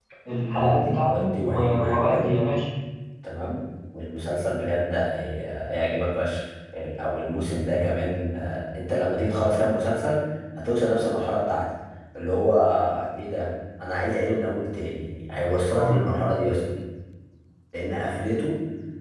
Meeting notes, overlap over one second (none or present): present